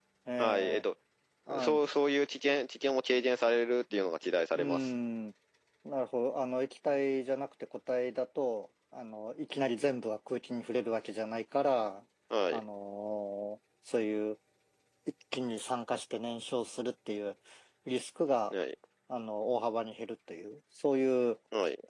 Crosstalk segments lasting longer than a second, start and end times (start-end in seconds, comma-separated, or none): none